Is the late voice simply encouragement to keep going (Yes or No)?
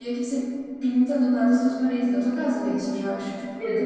No